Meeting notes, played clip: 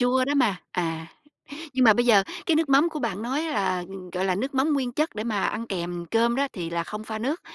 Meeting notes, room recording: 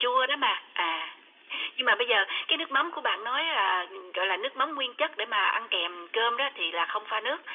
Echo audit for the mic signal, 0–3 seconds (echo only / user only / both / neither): echo only